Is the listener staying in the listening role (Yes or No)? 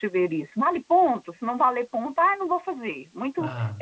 Yes